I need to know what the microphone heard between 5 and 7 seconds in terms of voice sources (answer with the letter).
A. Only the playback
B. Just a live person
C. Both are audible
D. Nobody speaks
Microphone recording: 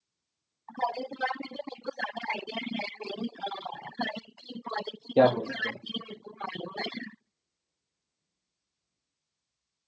C